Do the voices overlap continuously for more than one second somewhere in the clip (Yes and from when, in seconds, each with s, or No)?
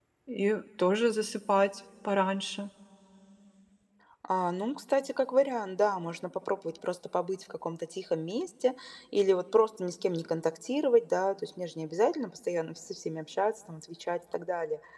No